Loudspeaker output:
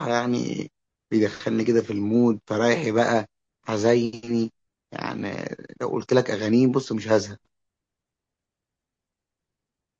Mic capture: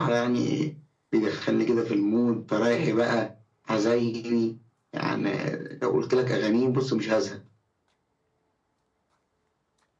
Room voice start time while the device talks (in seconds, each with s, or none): none